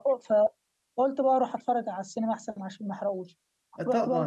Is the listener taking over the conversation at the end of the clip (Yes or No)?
Yes